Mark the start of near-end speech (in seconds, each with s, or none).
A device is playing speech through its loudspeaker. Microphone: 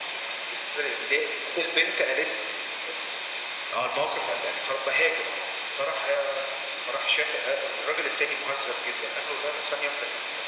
none